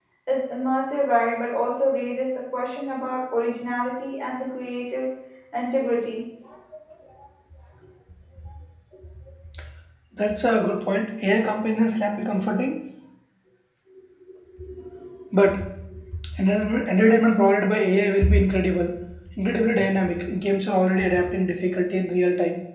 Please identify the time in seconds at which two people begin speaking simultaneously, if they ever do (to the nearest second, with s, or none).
none